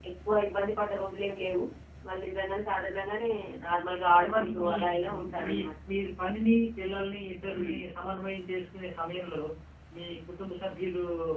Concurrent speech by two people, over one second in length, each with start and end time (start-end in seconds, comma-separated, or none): 4.1-5.5